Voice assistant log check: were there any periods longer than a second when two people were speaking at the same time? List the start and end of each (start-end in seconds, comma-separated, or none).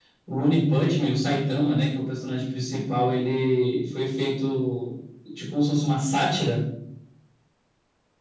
none